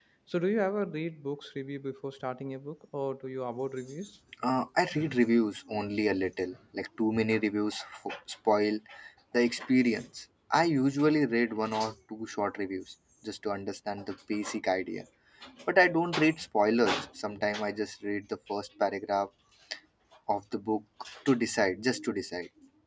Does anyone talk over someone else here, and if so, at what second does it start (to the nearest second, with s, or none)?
none